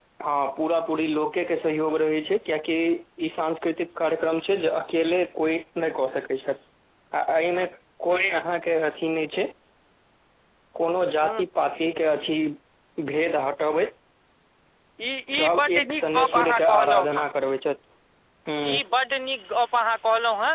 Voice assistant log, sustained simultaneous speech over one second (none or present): present